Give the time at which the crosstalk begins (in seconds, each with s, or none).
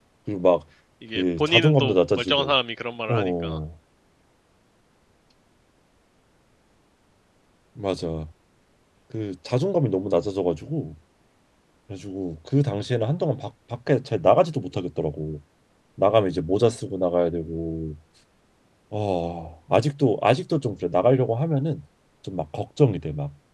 1.1 s